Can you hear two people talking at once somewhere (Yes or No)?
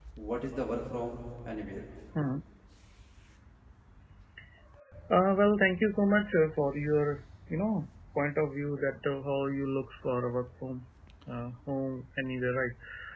No